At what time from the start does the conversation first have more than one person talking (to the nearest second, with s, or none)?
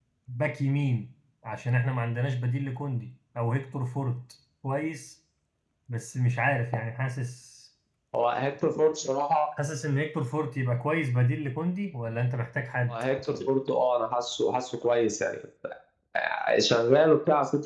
none